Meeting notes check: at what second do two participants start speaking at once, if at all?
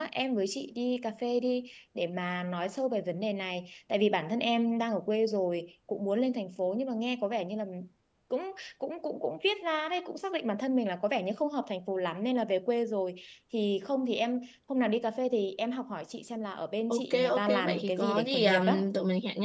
16.9 s

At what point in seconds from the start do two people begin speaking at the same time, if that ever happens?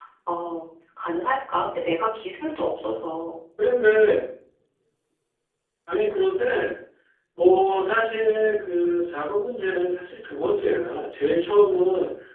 none

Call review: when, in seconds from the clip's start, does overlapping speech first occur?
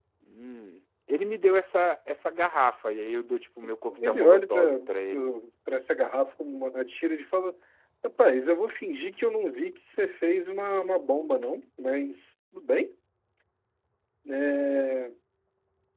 3.9 s

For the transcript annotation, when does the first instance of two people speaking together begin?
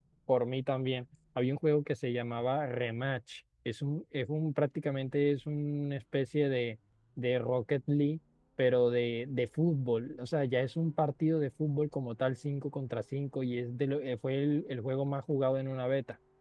none

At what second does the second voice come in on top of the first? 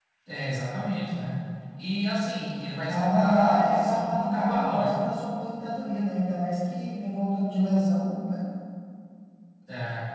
2.9 s

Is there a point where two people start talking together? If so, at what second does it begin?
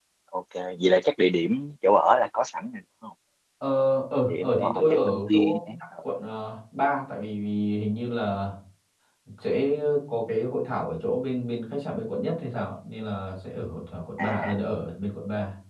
4.3 s

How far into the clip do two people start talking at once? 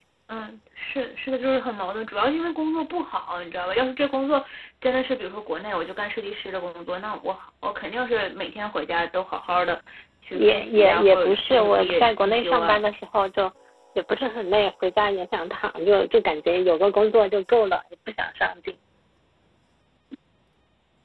10.3 s

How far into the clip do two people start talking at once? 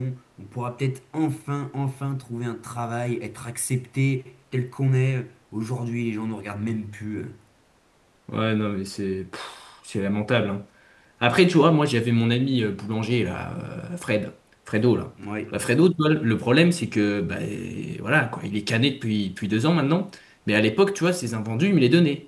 none

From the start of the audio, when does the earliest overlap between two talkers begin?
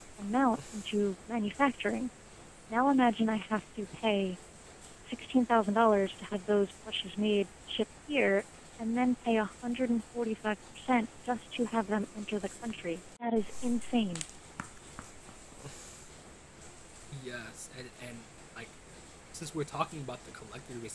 none

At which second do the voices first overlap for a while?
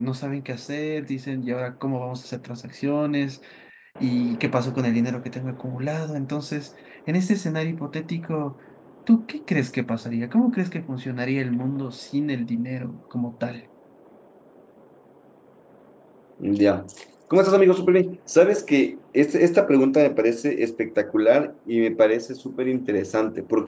none

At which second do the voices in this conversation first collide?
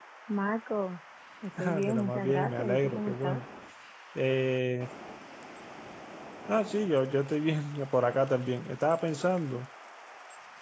1.8 s

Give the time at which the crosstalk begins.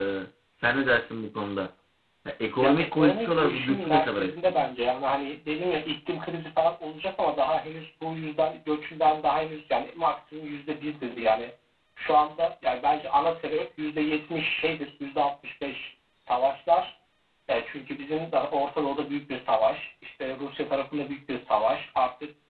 2.6 s

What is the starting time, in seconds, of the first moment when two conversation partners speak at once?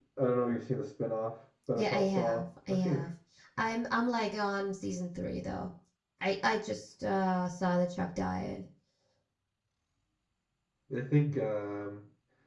1.8 s

